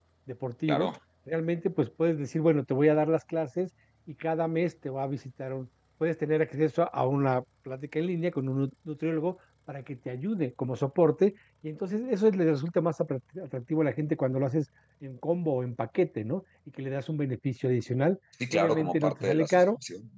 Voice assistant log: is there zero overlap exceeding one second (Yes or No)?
No